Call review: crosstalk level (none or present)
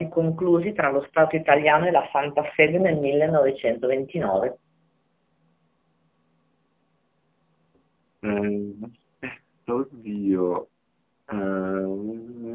none